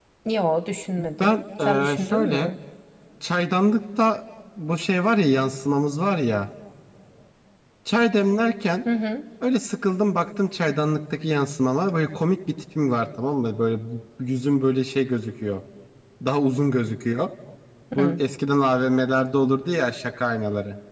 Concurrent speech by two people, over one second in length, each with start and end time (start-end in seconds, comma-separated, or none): 1.0-2.5